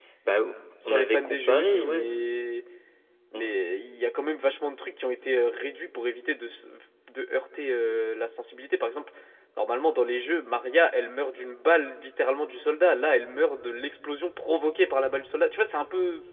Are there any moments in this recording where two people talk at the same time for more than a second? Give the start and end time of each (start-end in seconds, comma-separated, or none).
0.8-2.1